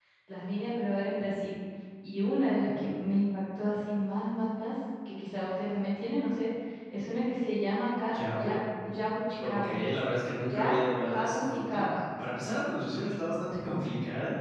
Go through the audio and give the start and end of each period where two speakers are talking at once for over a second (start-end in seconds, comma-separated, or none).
10.5-11.8